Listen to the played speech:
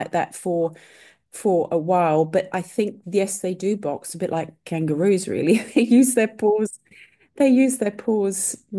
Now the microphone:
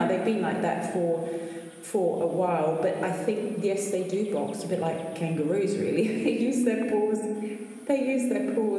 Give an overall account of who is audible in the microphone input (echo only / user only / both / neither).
echo only